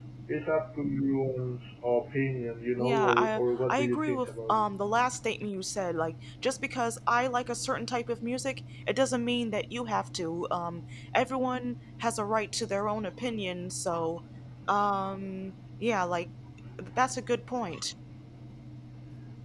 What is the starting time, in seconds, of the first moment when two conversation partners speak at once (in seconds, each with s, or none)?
2.8 s